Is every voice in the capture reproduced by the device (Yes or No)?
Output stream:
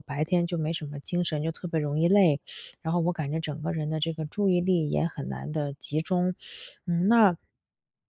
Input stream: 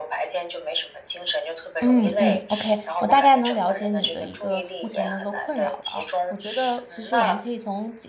No